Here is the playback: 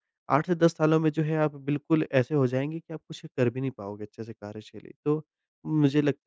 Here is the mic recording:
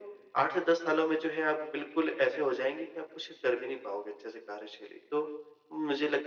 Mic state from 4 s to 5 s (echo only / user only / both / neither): echo only